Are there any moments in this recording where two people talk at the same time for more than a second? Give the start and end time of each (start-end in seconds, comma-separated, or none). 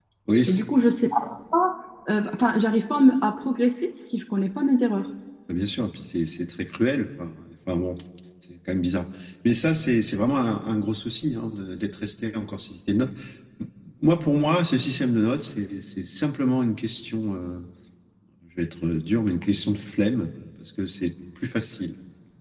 none